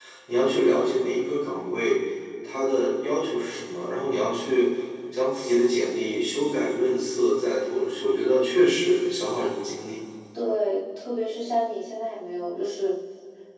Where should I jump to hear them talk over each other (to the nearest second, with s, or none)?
none